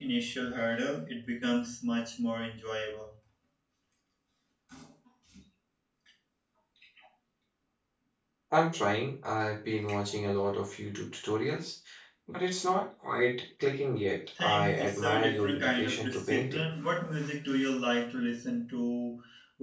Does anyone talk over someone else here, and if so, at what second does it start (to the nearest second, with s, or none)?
14 s